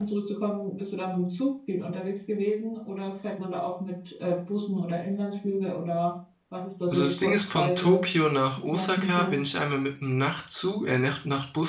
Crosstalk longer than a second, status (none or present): present